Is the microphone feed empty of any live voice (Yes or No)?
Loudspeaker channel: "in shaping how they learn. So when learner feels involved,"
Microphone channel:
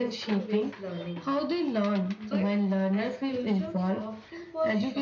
No